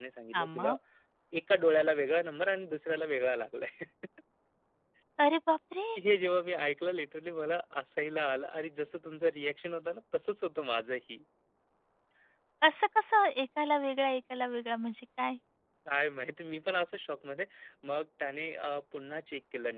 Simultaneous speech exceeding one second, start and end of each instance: none

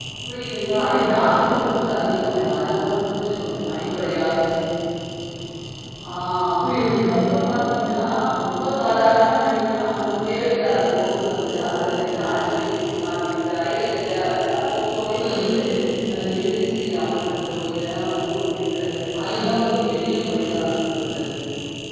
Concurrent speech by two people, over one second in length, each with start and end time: none

